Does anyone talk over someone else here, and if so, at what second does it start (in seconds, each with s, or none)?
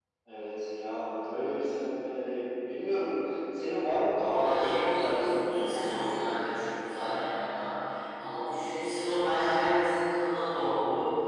4.1 s